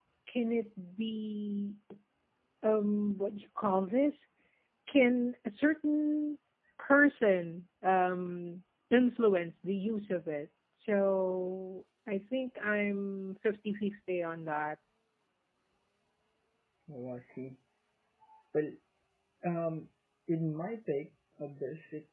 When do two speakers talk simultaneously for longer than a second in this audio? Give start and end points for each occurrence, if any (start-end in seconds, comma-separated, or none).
none